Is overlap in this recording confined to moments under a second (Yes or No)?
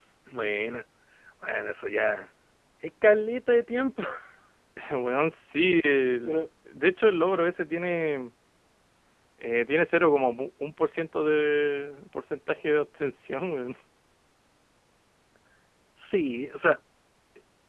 Yes